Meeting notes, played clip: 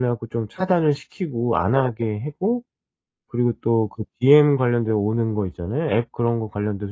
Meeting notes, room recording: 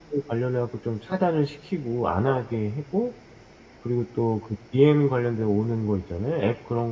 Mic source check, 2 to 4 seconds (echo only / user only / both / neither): echo only